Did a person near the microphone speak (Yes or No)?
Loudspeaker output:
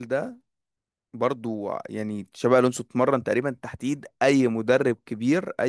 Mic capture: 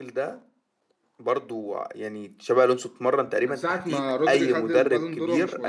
Yes